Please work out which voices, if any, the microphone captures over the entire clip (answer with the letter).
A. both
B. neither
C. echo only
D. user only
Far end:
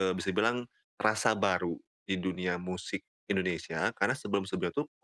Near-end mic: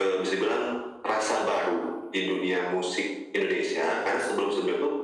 C